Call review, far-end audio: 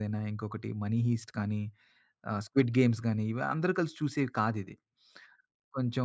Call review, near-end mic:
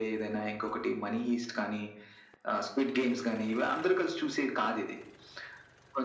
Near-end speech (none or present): none